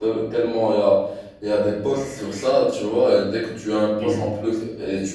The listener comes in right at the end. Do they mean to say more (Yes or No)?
No